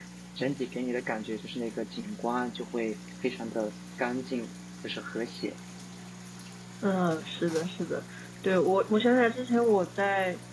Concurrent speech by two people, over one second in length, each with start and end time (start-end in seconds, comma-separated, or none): none